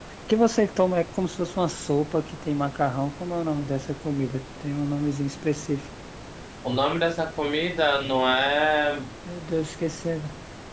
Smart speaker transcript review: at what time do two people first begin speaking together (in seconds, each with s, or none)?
none